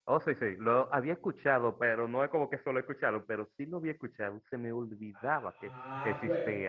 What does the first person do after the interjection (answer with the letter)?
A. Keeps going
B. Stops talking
B